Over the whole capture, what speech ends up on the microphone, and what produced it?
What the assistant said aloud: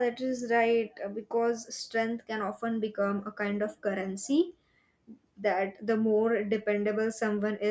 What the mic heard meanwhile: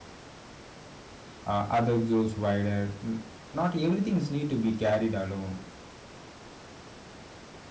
user only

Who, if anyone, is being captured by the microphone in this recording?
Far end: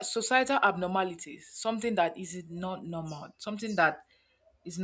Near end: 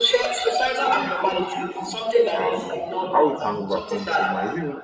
both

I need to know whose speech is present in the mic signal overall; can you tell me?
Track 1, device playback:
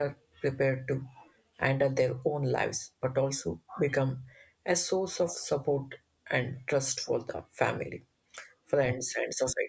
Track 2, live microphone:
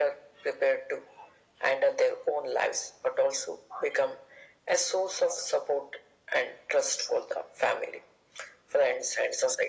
echo only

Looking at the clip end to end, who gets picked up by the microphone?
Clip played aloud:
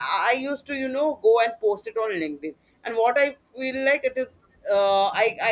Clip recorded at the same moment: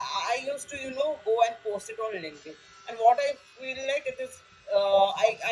echo only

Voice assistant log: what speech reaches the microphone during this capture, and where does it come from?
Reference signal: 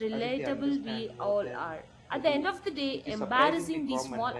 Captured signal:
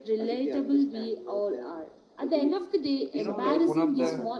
both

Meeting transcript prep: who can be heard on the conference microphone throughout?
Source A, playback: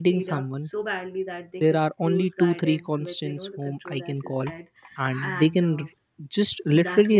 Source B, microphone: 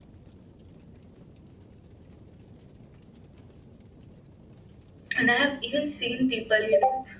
user only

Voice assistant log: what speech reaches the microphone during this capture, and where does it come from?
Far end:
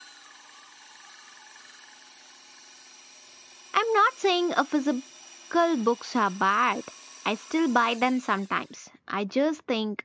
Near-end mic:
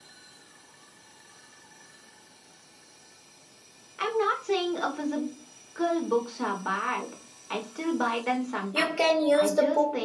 both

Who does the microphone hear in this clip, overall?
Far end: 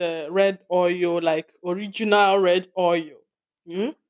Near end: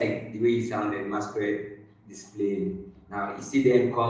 user only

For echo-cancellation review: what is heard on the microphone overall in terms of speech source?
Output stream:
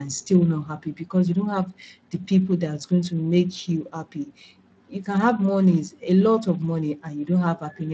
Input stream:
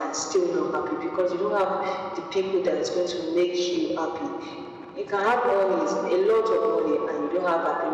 echo only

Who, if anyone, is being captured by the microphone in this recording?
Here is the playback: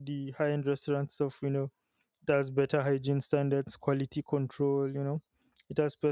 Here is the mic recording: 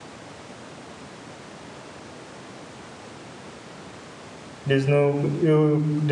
user only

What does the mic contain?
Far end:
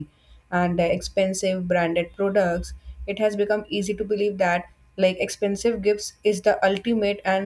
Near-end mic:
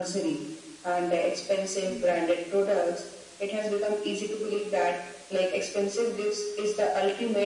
both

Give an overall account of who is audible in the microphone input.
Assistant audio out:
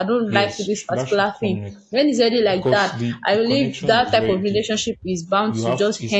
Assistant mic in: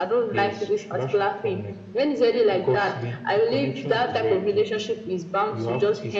echo only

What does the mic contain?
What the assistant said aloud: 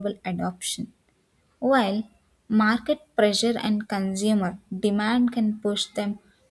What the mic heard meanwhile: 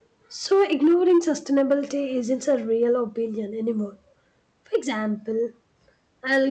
user only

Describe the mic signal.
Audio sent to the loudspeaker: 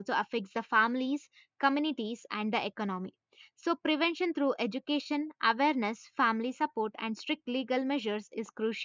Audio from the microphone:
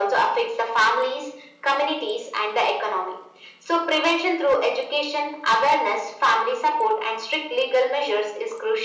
echo only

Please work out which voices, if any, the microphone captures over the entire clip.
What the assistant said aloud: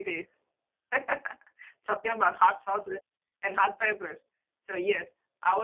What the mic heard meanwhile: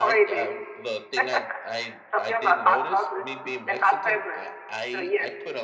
both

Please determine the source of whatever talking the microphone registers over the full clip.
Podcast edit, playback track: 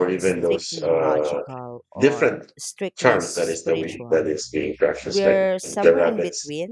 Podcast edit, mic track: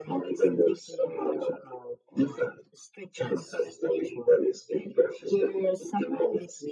echo only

